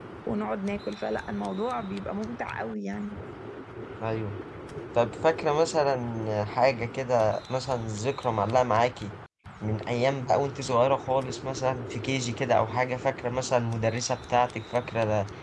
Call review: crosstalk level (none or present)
none